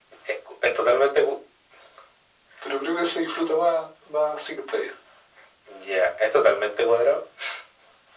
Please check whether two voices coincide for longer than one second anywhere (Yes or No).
No